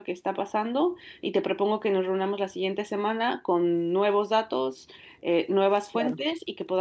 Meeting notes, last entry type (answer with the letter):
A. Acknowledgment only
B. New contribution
A